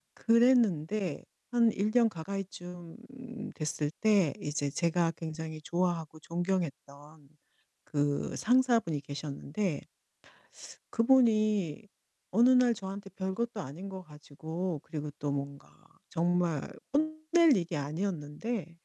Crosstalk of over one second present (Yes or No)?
No